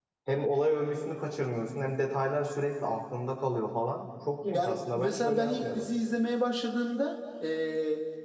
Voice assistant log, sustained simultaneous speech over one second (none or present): present